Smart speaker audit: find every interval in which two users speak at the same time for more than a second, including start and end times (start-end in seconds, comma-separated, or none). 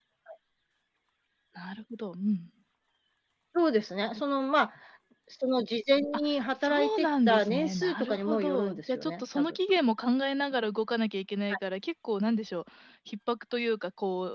6.2-9.6